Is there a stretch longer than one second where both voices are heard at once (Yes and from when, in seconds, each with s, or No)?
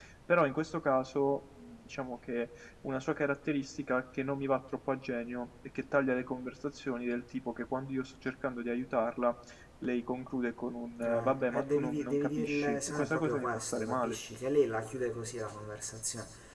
Yes, from 11.0 s